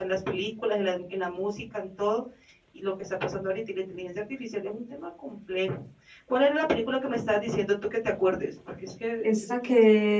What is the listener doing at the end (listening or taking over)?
taking over